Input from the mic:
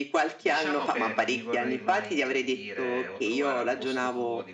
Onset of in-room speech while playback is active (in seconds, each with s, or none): 0.4 s